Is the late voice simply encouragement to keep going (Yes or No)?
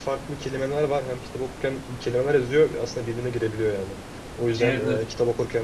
Yes